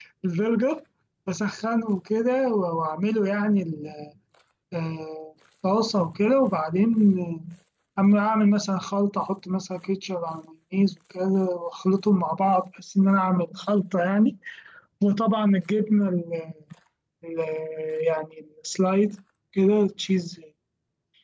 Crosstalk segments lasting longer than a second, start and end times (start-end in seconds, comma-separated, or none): none